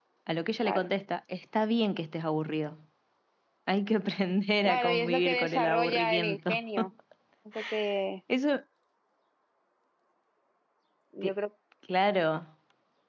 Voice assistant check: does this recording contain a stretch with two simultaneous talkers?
Yes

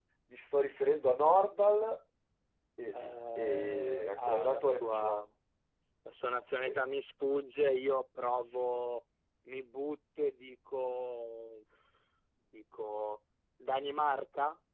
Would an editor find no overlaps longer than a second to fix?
No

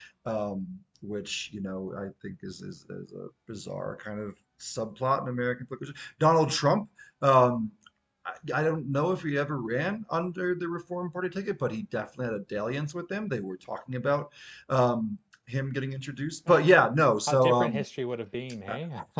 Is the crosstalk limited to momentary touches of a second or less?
Yes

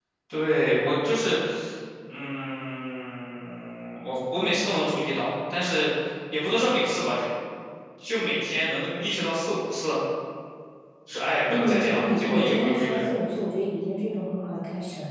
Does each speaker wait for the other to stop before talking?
No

